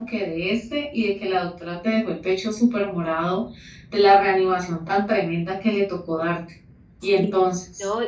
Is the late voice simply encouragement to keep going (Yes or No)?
No